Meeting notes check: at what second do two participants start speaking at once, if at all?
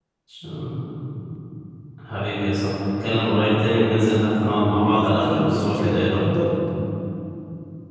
4.8 s

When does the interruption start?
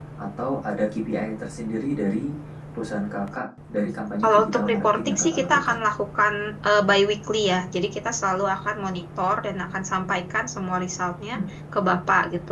4.2 s

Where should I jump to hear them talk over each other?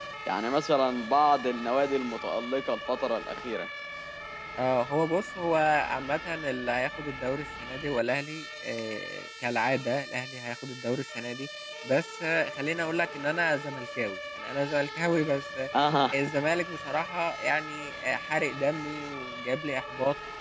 none

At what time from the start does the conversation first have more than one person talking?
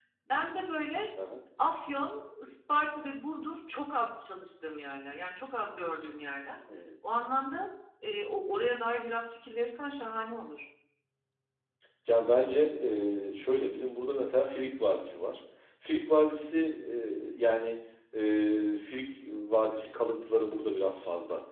none

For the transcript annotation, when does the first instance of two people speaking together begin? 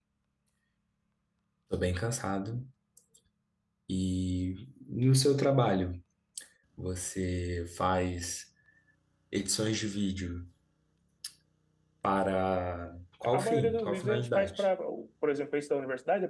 13.2 s

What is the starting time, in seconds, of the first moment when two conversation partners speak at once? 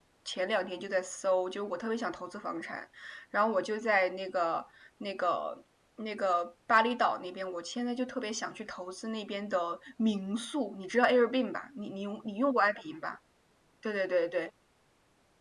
none

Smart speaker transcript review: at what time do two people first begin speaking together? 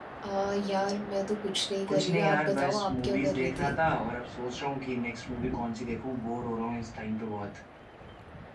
1.9 s

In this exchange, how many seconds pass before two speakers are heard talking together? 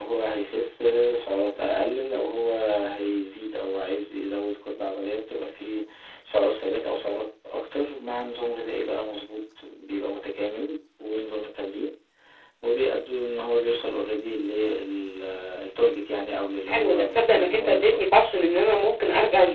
16.7 s

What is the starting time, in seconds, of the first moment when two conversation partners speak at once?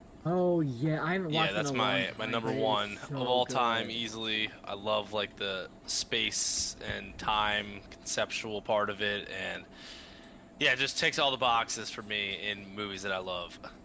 1.3 s

